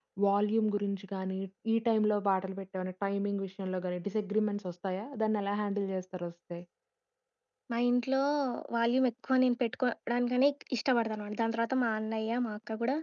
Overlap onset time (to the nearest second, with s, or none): none